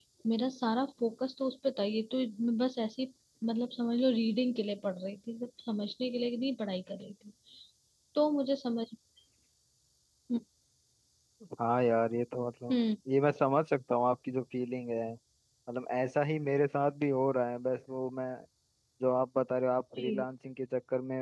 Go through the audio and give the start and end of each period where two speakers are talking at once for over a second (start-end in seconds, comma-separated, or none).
none